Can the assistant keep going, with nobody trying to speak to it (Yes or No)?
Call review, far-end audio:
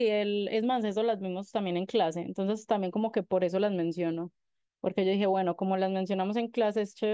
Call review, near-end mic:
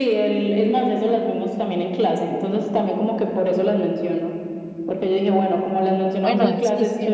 No